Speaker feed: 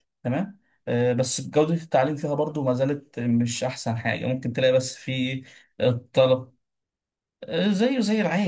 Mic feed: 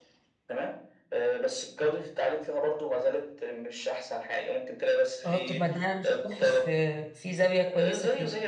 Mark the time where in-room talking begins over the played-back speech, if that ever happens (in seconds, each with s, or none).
5.2 s